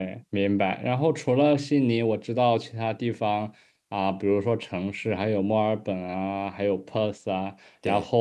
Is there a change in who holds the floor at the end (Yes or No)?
No